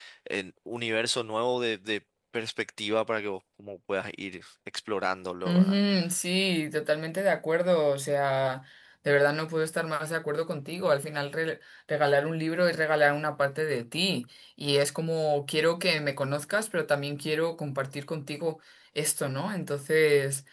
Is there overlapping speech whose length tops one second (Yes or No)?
No